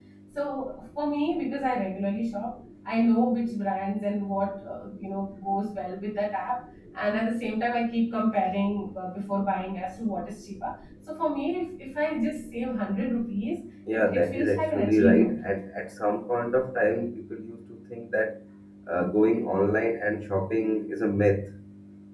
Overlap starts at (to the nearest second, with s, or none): 14 s